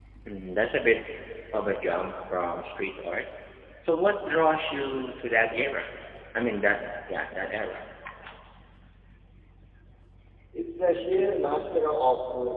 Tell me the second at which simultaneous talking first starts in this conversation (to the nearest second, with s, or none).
none